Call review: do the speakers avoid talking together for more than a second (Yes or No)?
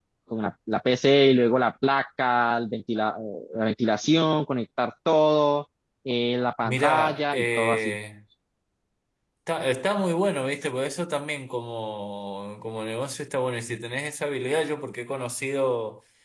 No